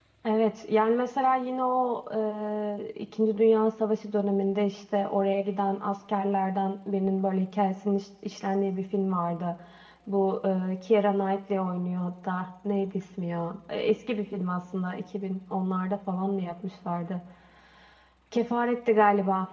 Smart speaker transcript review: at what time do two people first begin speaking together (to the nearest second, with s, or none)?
none